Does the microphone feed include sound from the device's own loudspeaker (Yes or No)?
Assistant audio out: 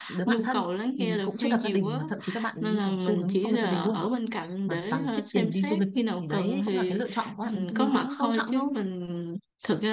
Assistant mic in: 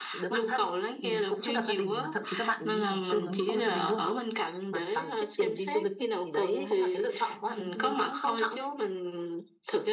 Yes